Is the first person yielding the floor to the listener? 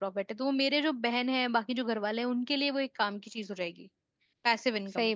Yes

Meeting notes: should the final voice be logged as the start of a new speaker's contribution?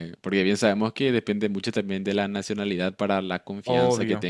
No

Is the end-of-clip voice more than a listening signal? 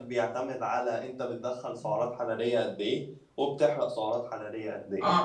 Yes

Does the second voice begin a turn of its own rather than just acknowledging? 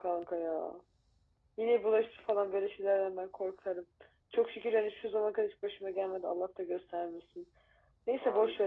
No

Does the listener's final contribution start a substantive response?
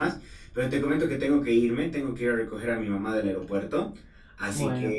No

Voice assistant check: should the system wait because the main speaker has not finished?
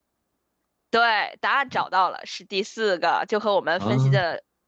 Yes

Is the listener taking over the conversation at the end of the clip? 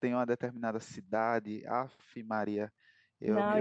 Yes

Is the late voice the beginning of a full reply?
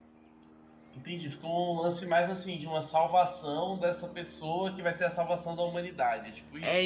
Yes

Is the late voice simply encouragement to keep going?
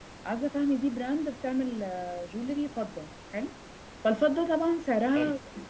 Yes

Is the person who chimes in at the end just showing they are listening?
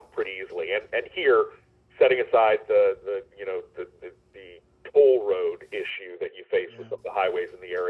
Yes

